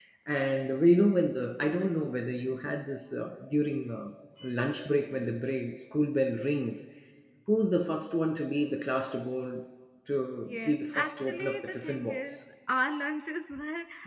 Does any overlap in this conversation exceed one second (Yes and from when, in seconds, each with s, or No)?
Yes, from 10.5 s